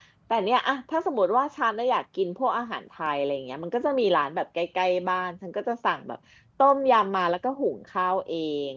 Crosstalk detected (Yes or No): No